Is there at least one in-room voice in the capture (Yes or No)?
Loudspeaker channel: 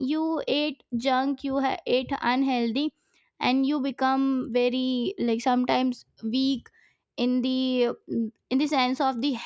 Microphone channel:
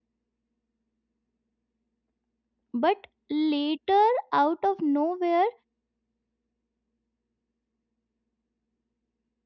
Yes